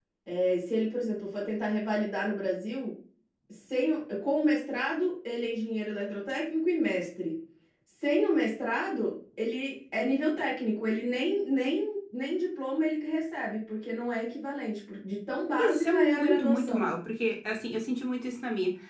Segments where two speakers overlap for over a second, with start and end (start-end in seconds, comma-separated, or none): 15.6-16.9